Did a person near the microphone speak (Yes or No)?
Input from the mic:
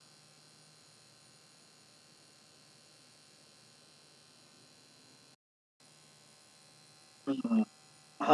Yes